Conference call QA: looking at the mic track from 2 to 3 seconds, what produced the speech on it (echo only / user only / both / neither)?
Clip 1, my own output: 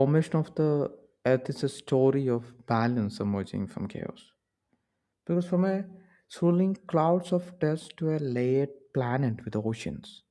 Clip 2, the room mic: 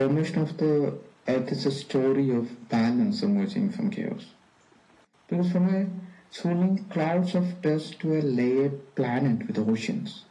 echo only